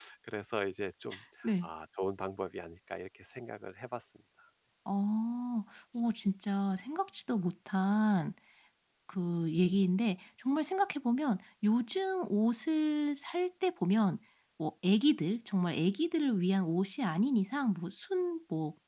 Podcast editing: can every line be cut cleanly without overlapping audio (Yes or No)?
Yes